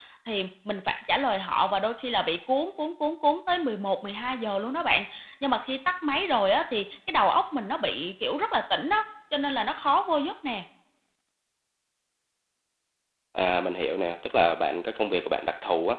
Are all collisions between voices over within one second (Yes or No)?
Yes